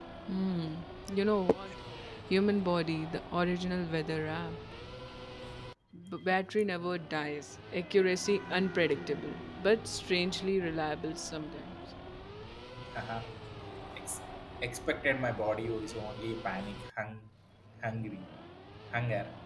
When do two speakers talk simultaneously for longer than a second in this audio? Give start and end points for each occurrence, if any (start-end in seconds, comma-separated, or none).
none